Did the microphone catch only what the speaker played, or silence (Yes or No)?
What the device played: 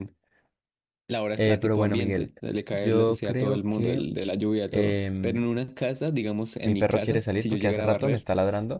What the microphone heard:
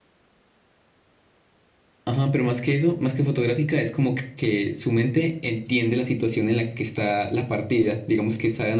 No